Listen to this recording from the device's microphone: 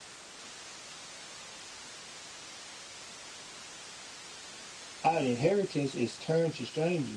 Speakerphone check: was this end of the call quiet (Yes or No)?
No